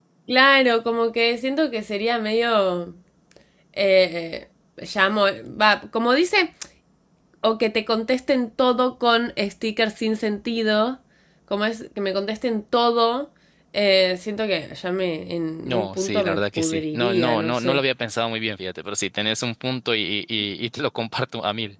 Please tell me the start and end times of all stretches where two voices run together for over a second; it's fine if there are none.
15.7-17.8

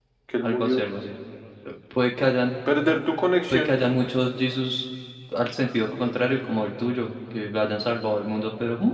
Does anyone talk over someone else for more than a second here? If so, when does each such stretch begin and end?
none

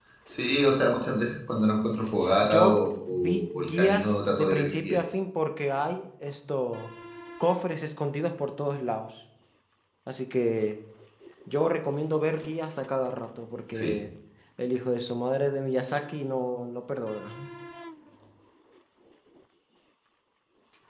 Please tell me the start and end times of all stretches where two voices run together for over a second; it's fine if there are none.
2.4-5.0

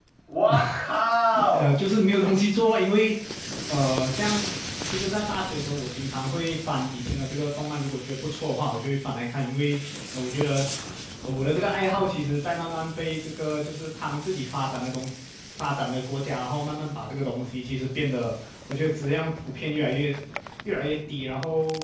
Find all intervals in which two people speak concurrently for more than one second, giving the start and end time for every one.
none

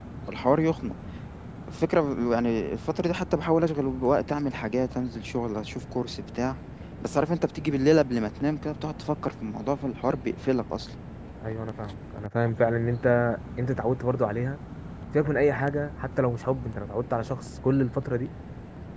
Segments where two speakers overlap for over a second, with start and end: none

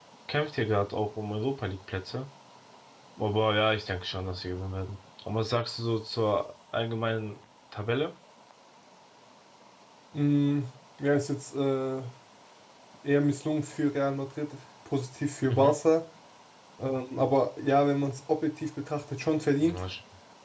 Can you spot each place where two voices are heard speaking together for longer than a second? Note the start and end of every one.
none

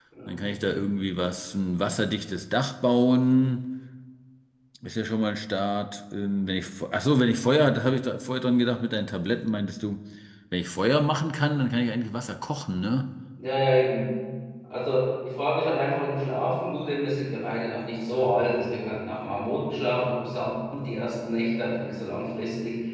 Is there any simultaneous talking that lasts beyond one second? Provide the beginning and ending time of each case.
none

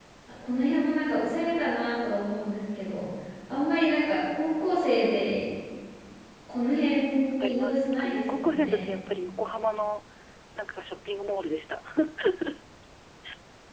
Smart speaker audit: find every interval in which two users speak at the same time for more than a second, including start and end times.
7.4-8.8

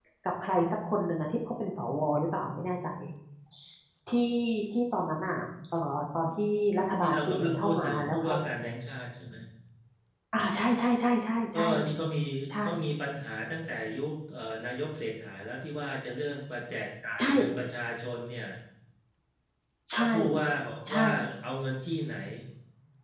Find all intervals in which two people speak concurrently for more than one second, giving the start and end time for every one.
7.0-8.3

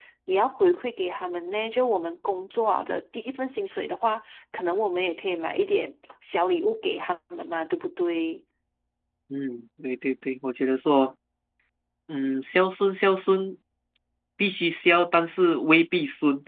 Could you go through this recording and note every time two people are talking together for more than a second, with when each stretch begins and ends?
none

